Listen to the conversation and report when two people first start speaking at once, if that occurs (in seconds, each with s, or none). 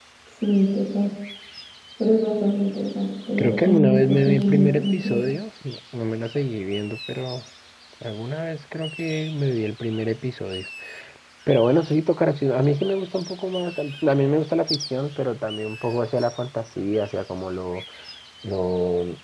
3.4 s